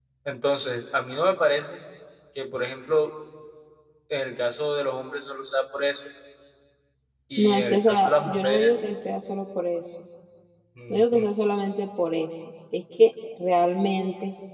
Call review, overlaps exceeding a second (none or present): present